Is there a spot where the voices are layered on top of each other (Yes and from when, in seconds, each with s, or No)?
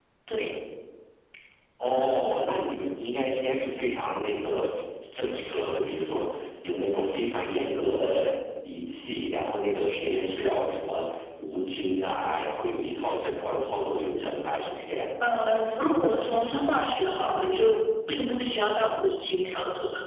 No